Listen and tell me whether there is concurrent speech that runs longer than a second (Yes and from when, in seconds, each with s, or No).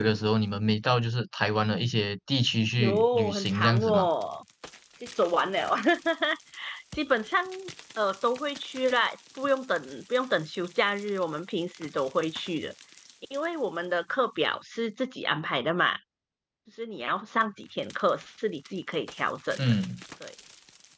Yes, from 2.8 s